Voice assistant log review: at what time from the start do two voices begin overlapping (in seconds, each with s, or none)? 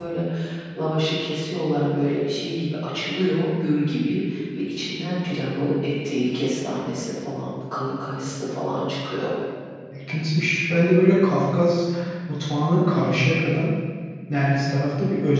none